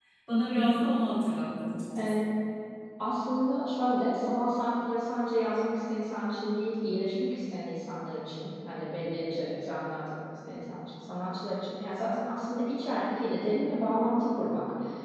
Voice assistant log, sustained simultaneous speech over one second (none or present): none